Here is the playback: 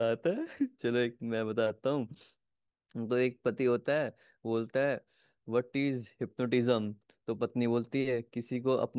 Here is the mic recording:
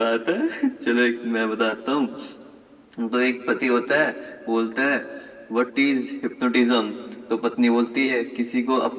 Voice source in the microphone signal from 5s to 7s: echo only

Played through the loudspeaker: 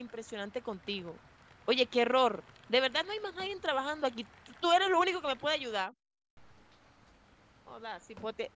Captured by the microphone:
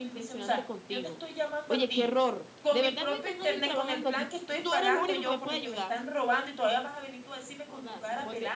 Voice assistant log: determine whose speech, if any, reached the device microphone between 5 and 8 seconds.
both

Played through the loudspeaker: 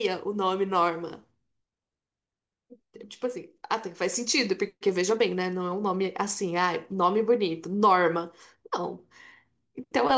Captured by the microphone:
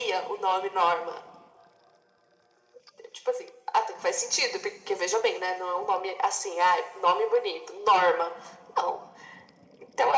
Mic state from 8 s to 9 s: echo only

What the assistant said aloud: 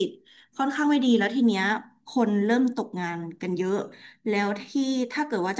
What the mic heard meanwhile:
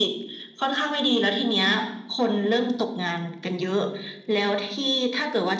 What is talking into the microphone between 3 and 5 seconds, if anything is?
echo only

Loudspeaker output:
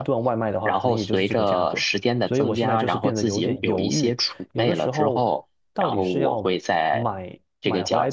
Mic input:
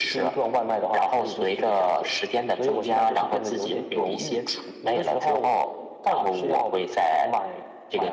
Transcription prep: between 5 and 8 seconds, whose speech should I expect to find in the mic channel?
echo only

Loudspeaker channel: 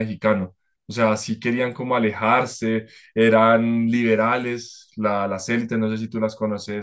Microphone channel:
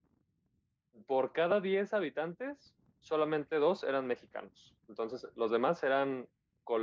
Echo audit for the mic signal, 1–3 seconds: user only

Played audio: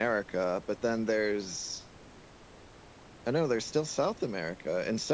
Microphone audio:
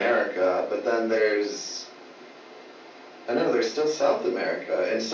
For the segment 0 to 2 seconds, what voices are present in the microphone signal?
echo only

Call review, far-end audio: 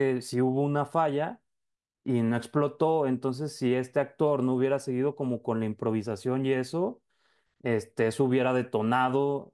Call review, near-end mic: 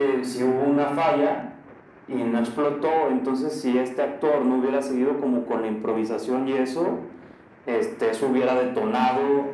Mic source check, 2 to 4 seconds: echo only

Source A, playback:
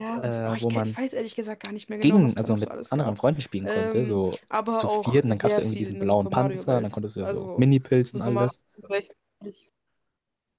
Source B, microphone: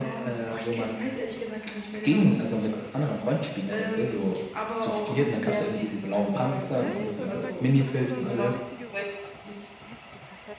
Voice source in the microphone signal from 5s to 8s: both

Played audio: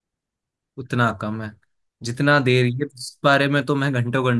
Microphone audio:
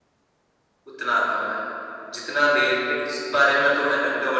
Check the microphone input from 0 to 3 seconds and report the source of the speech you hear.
echo only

